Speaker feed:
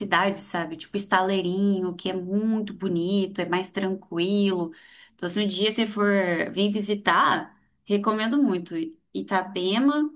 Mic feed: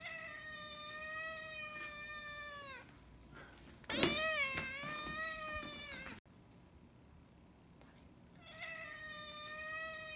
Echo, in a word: none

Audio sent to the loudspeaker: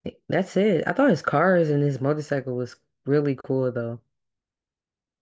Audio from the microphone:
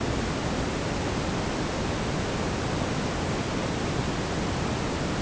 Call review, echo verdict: none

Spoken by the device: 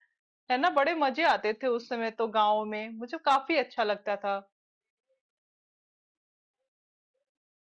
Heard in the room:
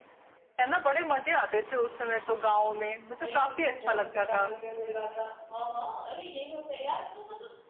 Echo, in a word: present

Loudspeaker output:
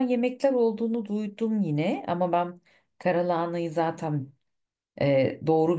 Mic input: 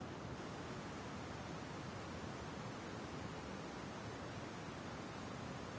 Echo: none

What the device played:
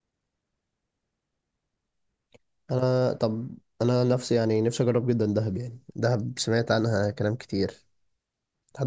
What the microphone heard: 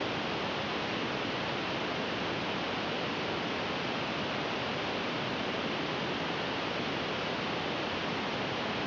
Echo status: none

